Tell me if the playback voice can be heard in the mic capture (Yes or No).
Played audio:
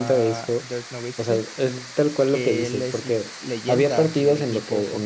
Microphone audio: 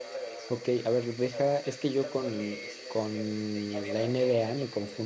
Yes